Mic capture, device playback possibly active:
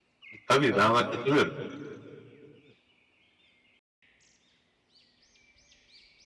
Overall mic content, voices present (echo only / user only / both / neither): user only